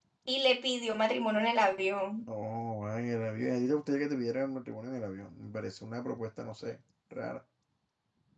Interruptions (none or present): none